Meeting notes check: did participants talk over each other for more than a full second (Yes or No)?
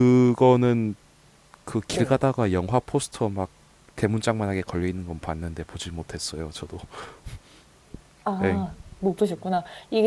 No